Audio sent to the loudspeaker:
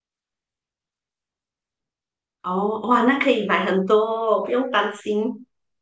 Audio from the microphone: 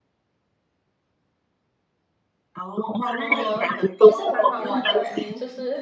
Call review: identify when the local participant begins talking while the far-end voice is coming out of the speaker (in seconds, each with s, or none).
3.1 s